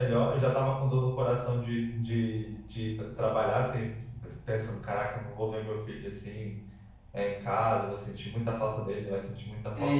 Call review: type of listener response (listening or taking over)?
taking over